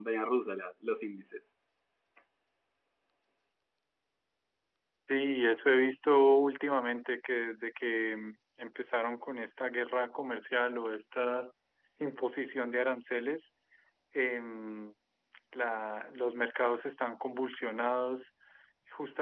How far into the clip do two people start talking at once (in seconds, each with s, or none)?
none